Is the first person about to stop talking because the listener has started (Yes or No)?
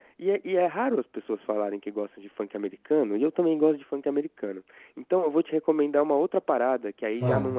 No